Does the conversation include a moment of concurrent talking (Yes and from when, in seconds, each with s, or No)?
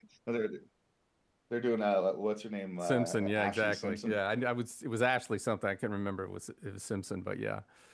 Yes, from 2.8 s